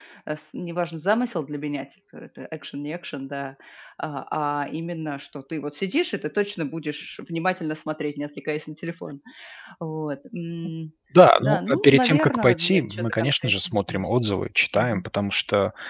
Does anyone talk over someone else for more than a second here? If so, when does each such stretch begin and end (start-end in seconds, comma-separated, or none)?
11.4-14.0